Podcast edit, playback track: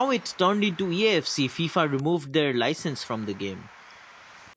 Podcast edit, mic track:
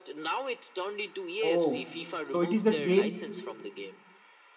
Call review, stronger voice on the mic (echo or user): user